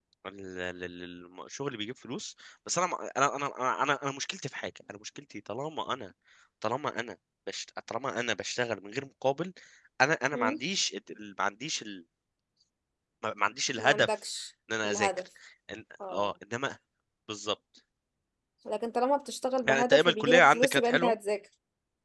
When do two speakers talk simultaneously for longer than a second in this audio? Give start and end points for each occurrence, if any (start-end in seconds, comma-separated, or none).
19.7-21.1